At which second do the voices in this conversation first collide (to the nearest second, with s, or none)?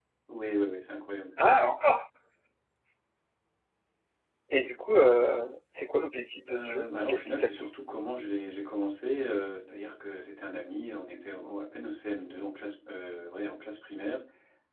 6 s